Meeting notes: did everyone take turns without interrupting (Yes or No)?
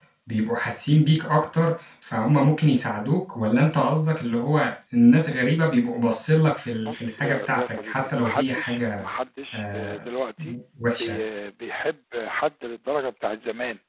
No